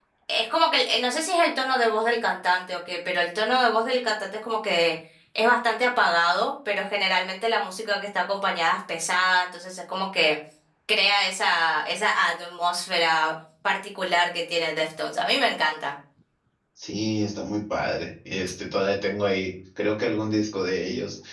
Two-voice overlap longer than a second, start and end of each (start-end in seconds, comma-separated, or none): none